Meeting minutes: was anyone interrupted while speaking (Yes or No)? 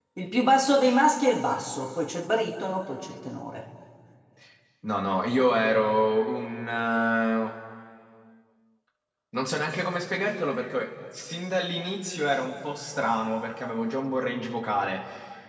No